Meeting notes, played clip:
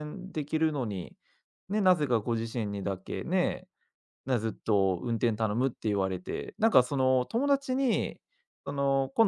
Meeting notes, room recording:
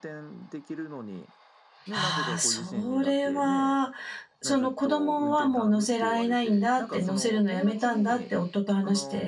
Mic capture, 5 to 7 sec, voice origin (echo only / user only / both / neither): both